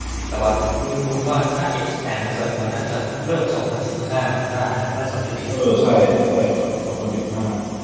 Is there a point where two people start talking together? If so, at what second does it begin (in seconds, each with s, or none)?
none